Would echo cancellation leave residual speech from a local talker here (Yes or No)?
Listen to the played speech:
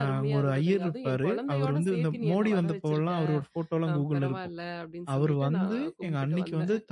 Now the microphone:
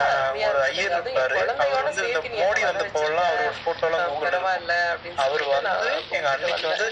No